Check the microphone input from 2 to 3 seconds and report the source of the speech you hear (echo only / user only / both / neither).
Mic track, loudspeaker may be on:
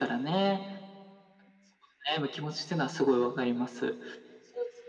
echo only